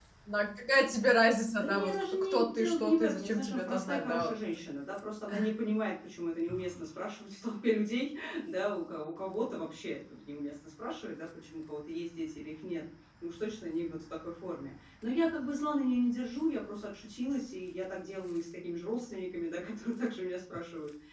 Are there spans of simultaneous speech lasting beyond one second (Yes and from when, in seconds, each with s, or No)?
Yes, from 1.6 s